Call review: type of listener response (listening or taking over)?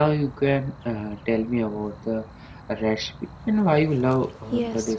taking over